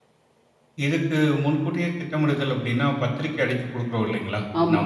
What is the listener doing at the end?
listening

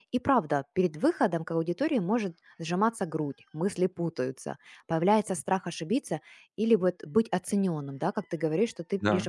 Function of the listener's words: listening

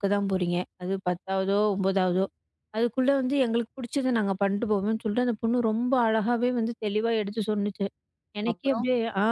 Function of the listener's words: listening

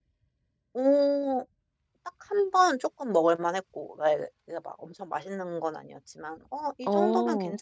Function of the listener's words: listening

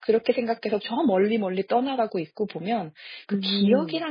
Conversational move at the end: listening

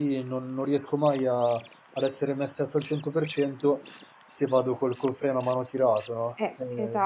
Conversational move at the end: taking over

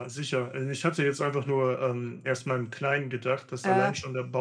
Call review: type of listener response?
listening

